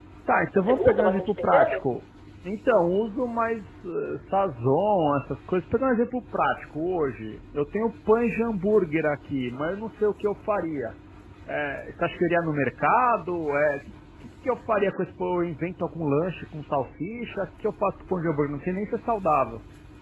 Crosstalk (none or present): present